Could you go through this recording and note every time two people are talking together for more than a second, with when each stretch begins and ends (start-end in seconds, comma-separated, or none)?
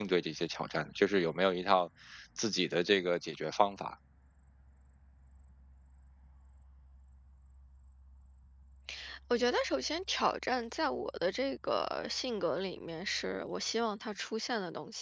none